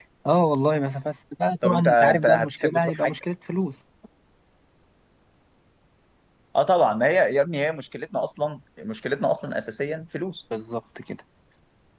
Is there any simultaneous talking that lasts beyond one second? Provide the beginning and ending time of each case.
1.6-3.2

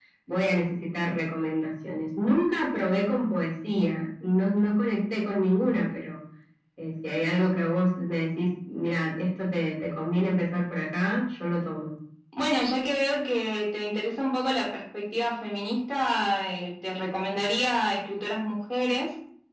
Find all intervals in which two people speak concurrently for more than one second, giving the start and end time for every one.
none

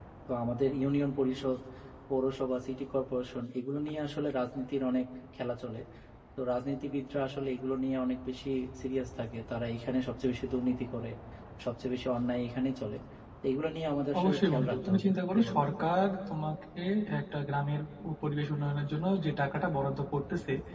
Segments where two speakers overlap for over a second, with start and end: 14.2-15.6

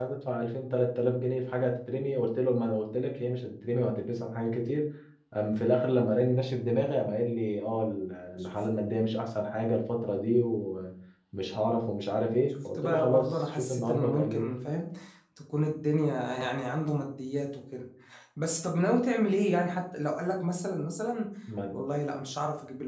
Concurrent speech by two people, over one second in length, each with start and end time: 12.8-14.5

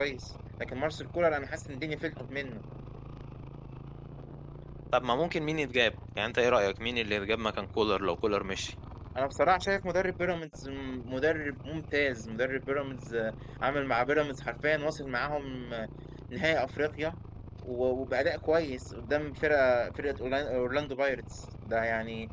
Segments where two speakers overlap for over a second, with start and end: none

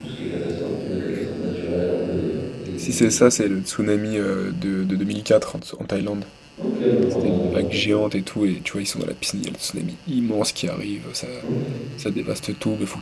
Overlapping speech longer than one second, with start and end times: none

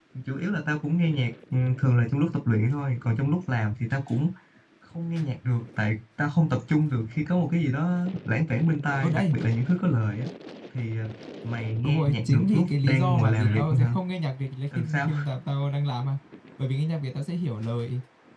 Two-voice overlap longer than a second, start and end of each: 11.8-13.9

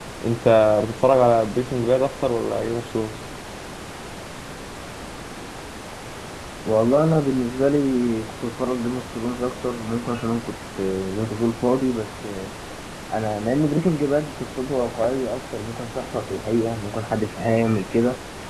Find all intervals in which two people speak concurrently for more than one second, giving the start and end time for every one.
none

